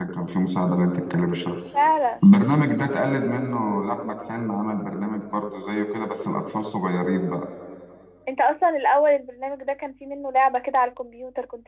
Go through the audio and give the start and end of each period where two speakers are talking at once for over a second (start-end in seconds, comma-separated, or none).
none